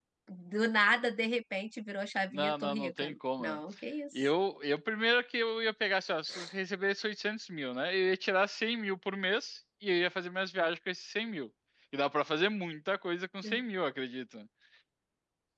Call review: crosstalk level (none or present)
present